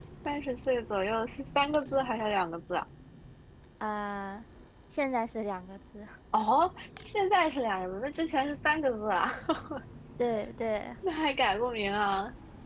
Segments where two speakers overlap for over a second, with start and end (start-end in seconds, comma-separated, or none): none